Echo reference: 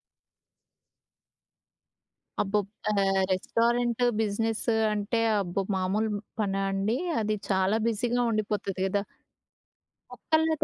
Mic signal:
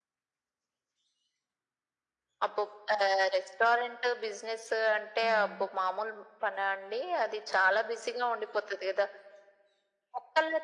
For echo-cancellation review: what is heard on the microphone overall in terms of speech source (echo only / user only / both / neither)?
both